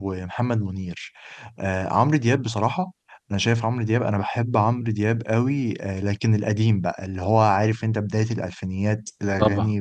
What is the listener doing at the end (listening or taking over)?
listening